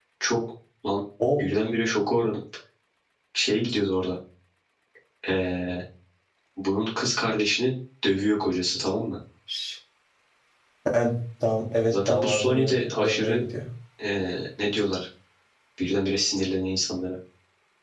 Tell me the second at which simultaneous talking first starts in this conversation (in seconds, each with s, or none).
11.9 s